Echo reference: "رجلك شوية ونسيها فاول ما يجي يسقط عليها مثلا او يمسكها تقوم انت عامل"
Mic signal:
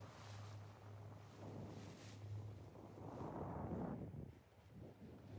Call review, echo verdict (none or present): none